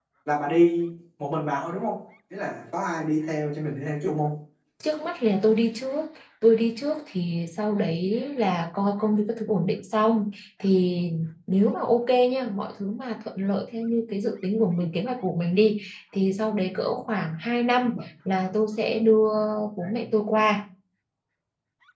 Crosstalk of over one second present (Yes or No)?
No